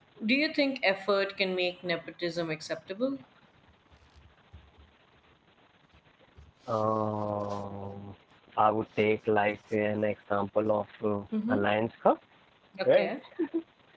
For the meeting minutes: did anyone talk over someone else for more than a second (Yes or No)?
No